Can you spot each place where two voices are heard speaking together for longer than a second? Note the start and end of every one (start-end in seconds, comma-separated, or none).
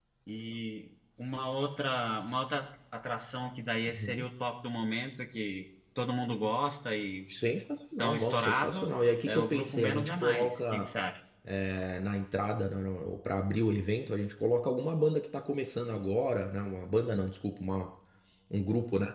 8.0-10.9